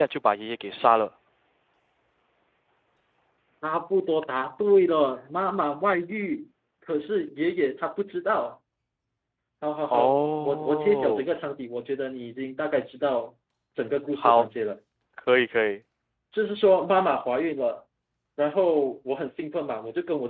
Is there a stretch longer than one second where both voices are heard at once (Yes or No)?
Yes